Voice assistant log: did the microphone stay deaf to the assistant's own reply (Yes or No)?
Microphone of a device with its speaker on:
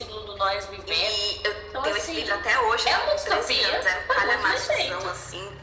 No